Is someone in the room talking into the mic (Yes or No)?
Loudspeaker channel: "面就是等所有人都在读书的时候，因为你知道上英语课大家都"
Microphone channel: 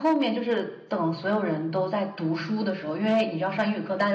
No